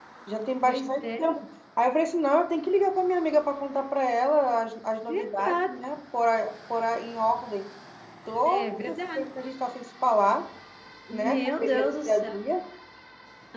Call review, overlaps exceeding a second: present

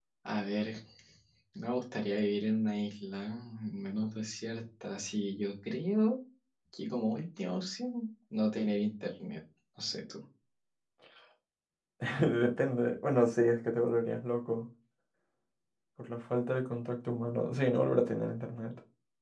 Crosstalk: none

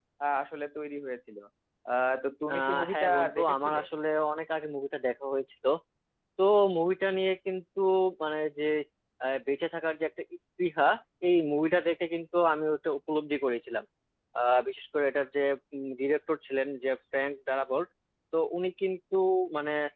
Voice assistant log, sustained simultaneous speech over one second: present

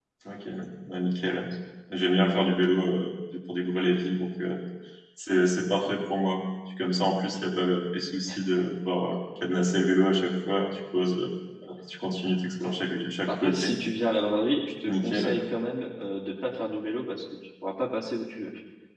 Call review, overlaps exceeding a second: none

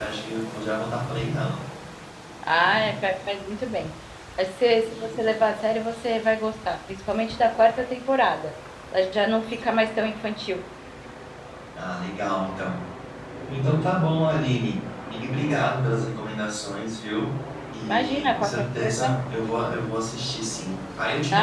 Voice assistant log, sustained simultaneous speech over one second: present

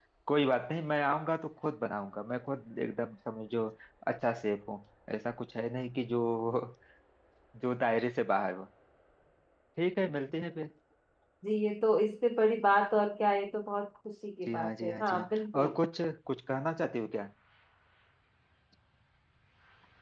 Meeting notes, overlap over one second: present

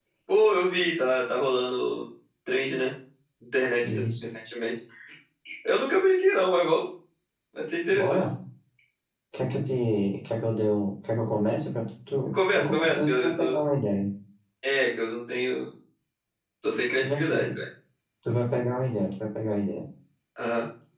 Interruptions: present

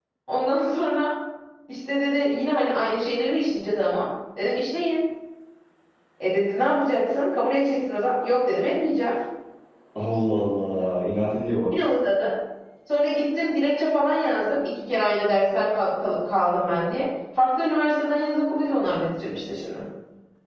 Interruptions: none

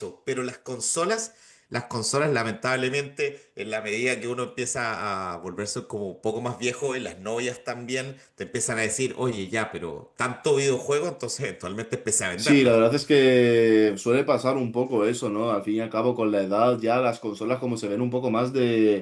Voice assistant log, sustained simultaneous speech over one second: none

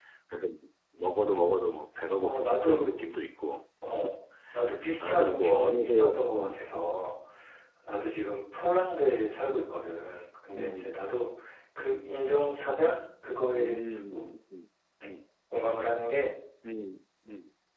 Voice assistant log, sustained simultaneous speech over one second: present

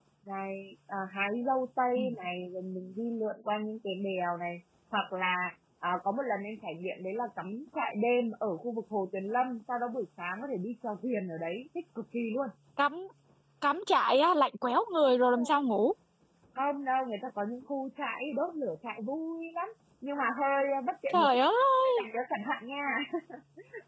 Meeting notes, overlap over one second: none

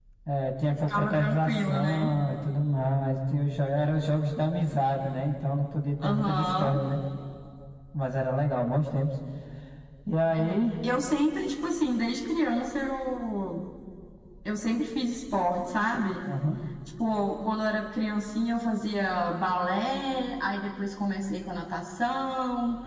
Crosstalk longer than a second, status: present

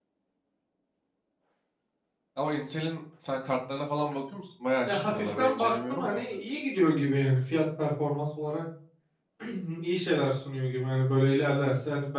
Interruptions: present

